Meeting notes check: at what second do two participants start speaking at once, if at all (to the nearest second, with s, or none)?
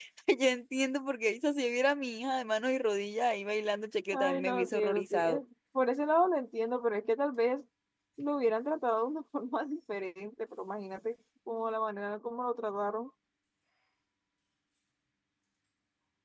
4 s